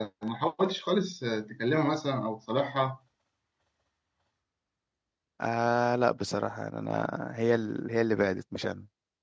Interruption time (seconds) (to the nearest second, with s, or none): none